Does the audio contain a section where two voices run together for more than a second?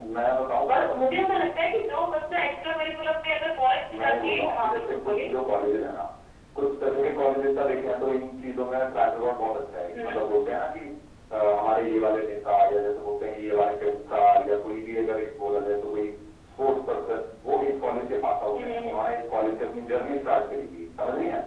Yes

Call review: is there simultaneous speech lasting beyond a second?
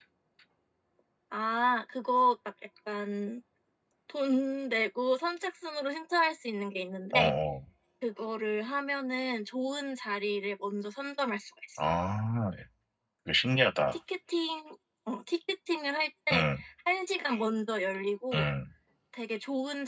No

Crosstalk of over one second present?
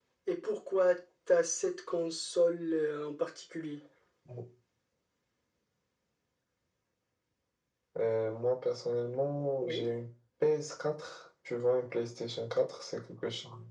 No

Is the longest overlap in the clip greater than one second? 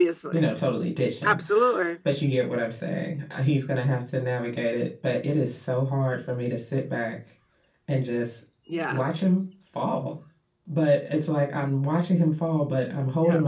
No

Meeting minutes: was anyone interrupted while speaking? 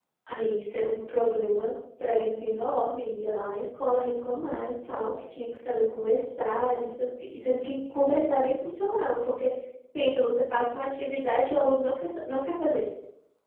No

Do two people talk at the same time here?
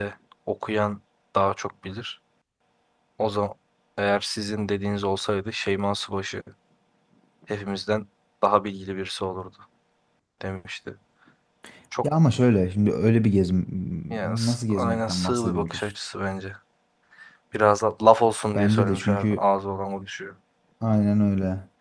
Yes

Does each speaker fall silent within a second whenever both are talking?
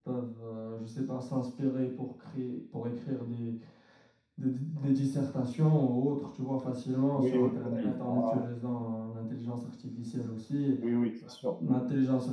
No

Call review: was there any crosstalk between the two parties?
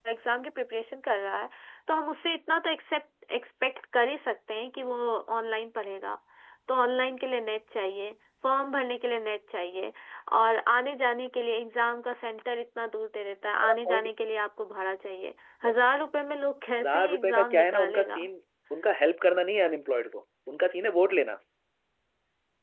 Yes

